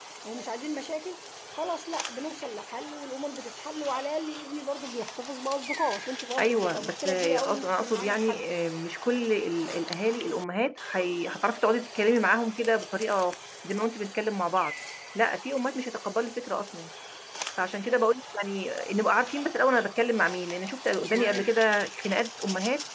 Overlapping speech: Yes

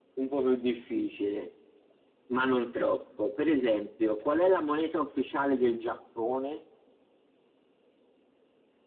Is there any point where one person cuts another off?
No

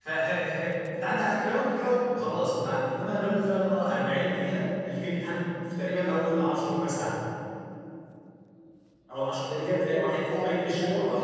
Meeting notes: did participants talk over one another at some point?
Yes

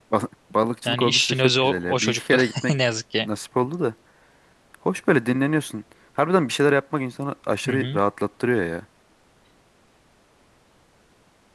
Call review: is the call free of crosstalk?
No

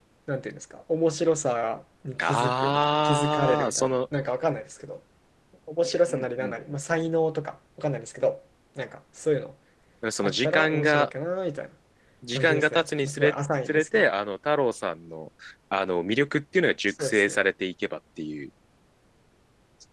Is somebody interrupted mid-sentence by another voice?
Yes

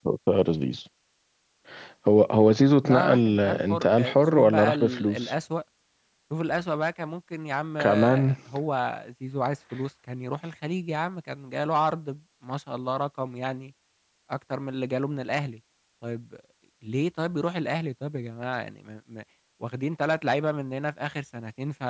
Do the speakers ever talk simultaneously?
Yes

